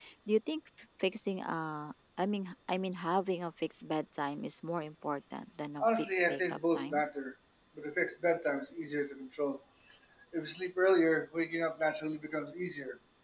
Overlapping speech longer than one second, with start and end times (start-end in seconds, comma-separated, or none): 5.8-7.0